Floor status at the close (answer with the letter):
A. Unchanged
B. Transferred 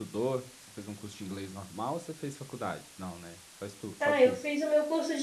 B